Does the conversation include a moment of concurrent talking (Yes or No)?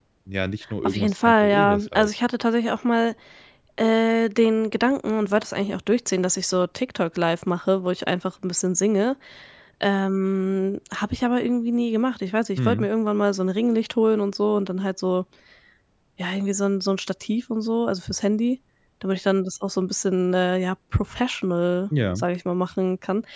Yes